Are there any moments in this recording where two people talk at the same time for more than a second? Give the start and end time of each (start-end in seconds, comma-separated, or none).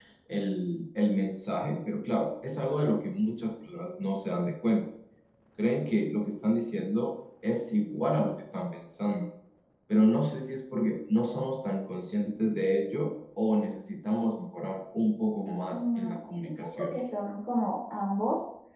15.7-16.9